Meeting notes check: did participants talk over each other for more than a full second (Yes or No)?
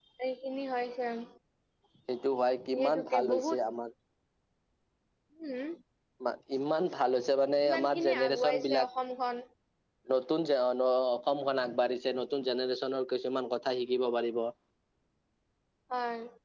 Yes